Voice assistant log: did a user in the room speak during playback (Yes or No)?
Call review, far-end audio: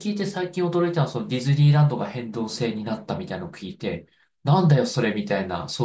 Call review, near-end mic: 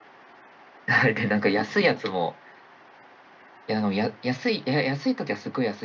Yes